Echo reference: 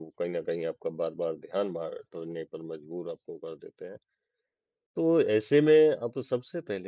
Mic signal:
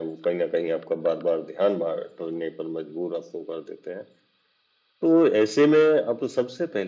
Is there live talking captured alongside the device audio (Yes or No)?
No